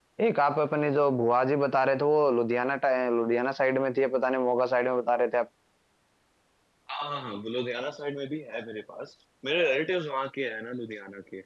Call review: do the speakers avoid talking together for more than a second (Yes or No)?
Yes